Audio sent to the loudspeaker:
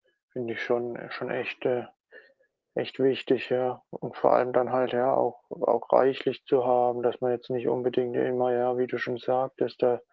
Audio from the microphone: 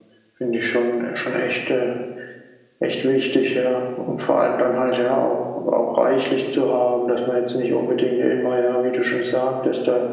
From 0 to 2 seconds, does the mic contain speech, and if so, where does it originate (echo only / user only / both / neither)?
echo only